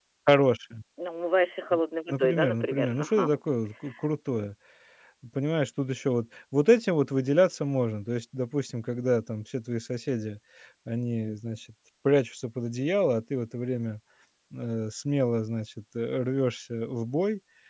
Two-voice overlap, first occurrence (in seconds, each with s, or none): 2.1 s